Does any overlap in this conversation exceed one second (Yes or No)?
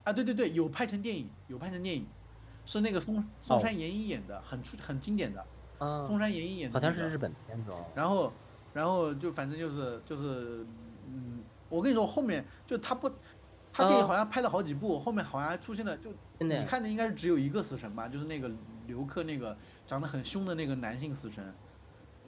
No